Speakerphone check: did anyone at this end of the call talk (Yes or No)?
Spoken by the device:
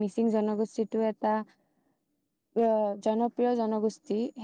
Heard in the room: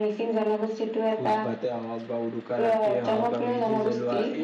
Yes